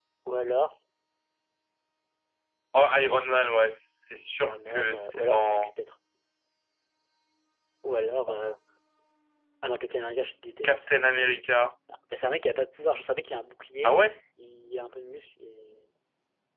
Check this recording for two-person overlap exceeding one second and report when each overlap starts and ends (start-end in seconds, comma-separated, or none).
4.4-5.7